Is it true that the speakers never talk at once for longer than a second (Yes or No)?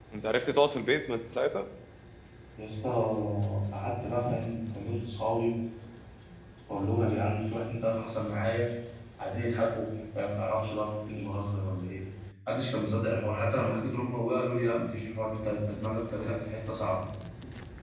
Yes